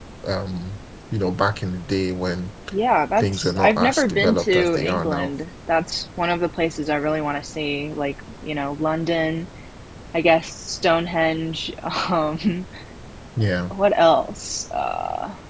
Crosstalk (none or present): present